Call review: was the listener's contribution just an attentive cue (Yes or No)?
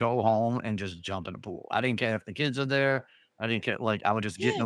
No